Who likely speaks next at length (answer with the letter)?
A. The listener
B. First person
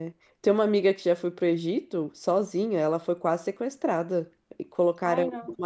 B